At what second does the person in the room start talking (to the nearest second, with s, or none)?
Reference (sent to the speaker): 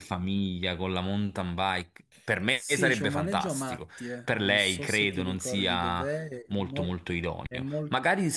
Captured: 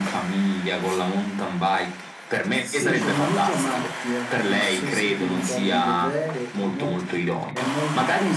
none